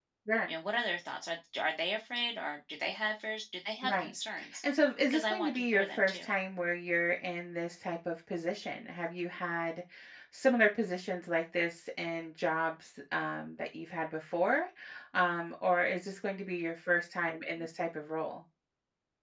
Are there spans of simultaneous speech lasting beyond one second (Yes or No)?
Yes